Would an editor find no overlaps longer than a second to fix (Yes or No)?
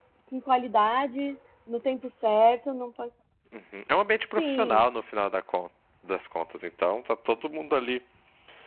Yes